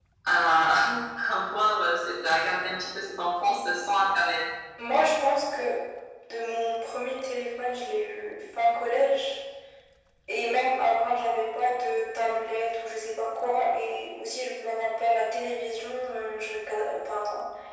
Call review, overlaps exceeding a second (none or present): none